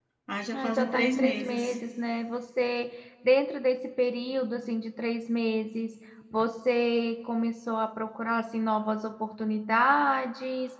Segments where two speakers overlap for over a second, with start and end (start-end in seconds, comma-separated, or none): 0.5-1.7